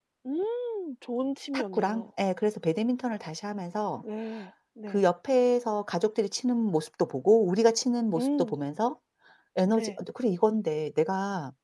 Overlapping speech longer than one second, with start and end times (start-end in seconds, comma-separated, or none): none